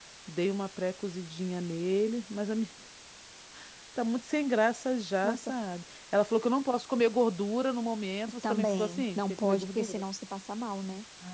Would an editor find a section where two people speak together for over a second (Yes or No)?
Yes